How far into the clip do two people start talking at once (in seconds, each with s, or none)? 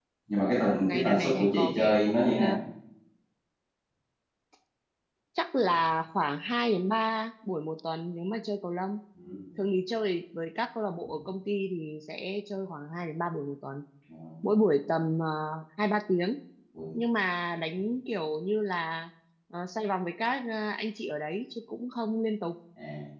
0.8 s